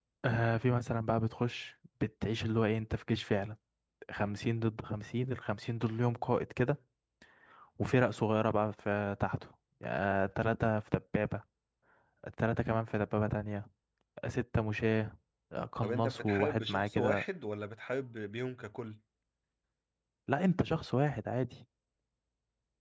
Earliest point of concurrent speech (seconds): 16 s

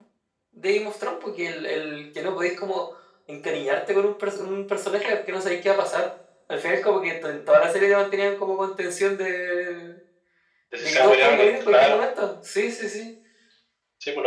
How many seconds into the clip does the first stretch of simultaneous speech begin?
11 s

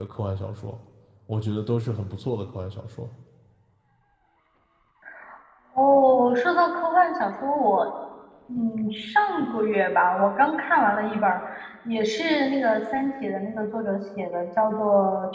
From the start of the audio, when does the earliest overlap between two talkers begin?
none

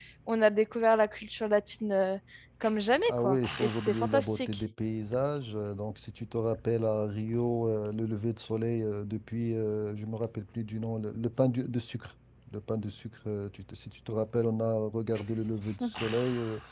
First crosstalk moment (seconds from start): 3 s

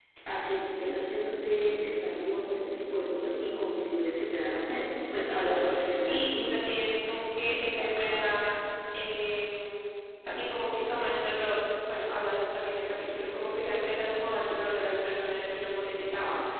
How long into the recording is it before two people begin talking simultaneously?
5 s

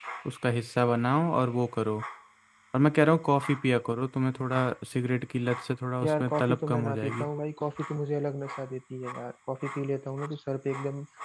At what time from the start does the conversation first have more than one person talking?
6 s

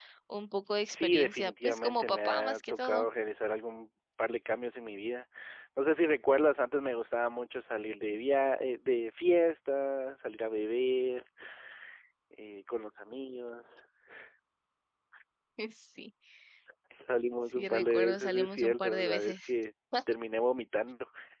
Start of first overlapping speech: 1 s

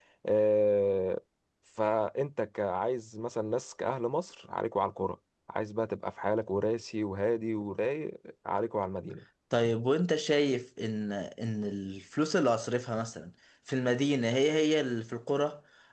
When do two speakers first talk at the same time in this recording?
none

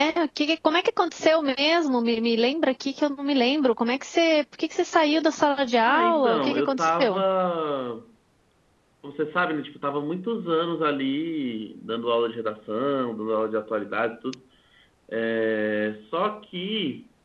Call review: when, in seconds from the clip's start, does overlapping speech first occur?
6 s

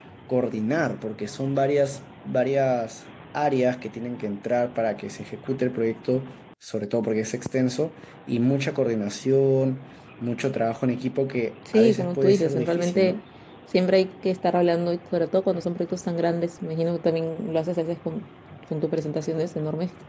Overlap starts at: 12 s

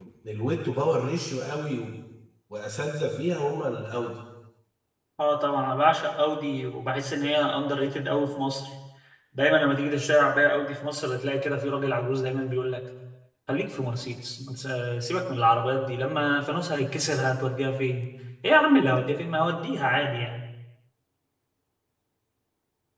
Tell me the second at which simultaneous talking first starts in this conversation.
none

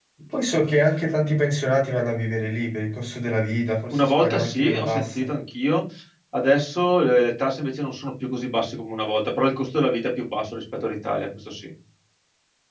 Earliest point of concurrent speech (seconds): 4 s

